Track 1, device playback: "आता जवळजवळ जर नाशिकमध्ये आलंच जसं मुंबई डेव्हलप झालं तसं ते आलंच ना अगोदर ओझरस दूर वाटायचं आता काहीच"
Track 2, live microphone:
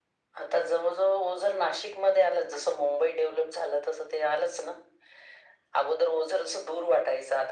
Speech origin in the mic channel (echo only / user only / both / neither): echo only